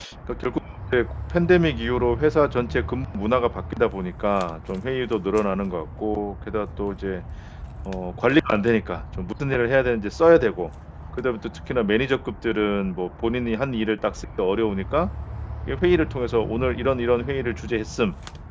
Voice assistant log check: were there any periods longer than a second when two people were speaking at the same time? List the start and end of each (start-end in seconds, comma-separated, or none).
none